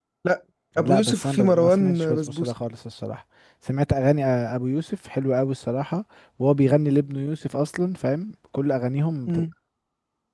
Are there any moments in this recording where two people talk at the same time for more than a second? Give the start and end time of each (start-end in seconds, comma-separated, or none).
0.8-2.5